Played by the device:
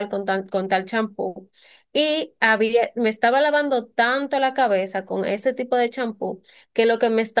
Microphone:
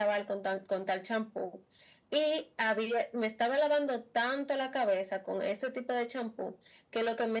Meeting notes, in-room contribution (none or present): none